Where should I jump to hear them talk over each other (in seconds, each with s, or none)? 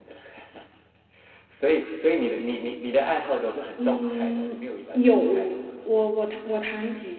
3.8 s